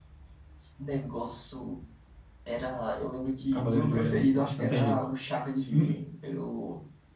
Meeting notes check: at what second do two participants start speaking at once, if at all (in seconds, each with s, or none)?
3.5 s